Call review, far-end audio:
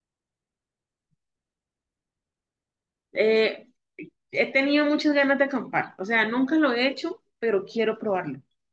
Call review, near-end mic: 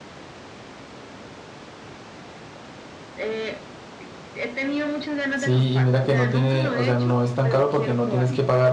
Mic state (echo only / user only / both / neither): both